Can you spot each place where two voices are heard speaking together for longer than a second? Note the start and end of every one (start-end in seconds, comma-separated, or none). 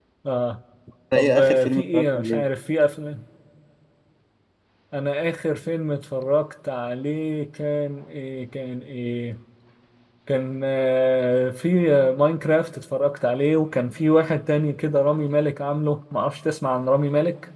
1.1-2.5